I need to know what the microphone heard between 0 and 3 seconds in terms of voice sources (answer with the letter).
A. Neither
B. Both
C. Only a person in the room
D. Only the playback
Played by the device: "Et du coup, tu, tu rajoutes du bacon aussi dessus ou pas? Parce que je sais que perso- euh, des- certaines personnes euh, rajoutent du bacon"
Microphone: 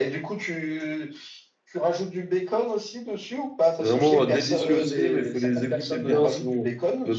D